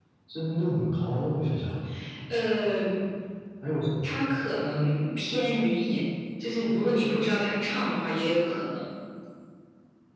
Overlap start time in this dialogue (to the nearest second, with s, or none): none